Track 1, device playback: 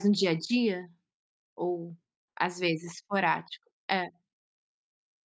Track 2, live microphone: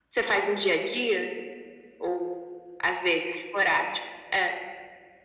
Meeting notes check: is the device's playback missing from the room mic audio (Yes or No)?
No